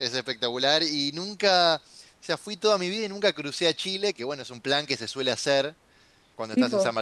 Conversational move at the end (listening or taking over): listening